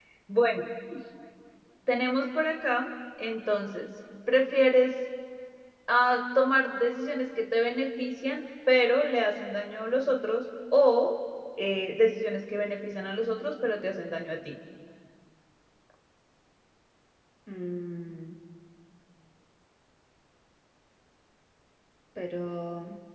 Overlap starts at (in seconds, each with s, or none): none